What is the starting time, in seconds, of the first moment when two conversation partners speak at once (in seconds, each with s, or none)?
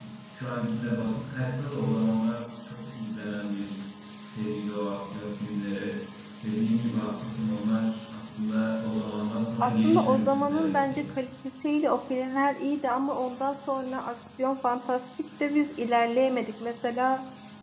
9.6 s